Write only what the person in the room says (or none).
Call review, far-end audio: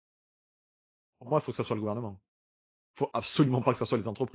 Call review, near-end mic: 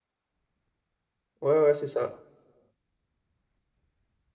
ouais, ouais, c'est ça.